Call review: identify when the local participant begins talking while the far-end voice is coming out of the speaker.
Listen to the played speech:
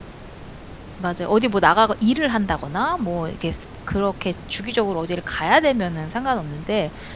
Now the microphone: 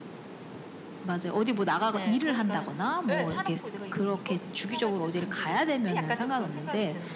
1.9 s

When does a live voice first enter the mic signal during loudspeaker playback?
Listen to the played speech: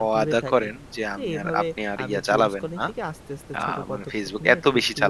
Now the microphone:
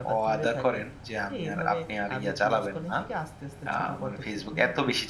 none

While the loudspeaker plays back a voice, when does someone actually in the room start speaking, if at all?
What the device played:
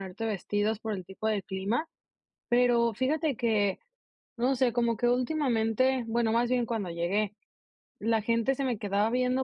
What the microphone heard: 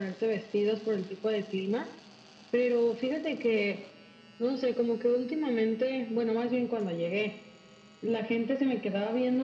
none

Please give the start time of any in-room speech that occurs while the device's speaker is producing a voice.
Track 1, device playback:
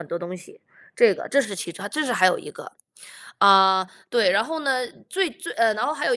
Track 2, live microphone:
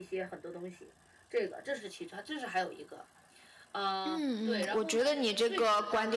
4.0 s

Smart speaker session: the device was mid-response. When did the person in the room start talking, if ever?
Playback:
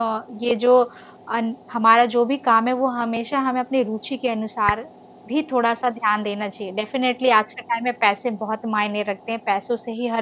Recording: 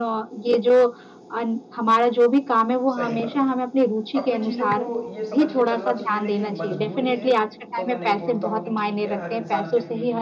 2.9 s

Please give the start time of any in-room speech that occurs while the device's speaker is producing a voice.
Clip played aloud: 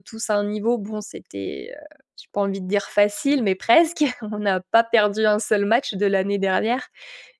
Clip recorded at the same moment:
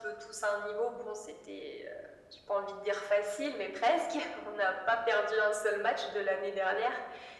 none

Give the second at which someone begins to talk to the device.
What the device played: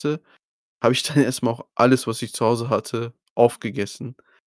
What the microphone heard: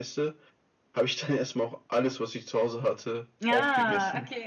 3.4 s

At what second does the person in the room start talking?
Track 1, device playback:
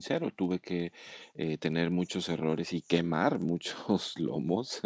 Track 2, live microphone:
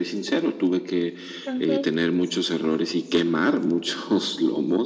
1.4 s

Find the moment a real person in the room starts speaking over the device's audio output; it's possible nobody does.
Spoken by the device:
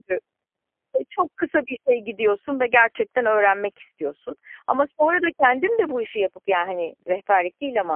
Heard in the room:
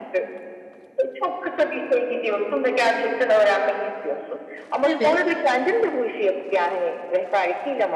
4.8 s

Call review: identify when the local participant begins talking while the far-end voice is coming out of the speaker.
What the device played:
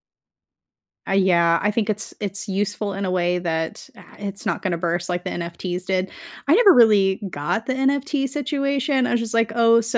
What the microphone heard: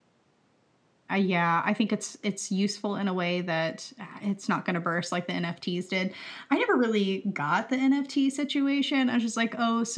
none

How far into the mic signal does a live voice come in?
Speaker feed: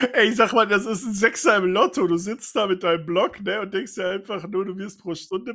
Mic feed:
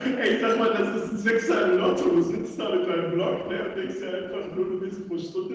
none

